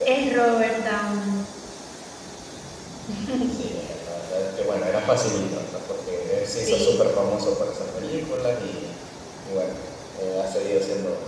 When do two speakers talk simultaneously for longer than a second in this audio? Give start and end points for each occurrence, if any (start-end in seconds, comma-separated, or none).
none